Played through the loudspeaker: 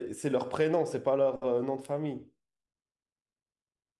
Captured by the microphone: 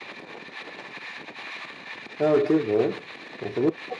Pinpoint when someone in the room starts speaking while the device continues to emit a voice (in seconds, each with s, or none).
2.2 s